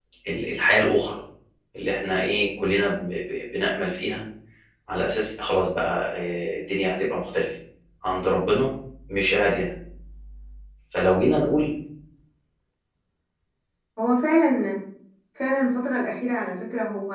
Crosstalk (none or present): none